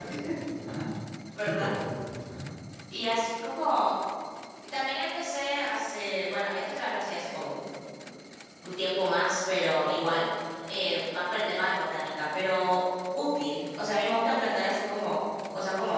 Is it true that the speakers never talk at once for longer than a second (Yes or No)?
Yes